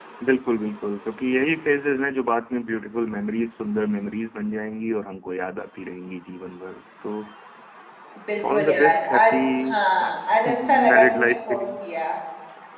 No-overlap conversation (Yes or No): No